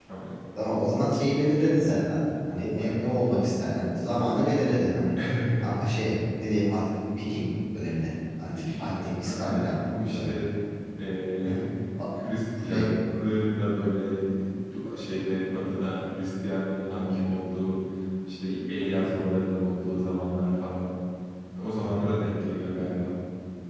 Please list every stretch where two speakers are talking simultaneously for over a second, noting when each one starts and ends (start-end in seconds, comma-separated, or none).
8.4-9.8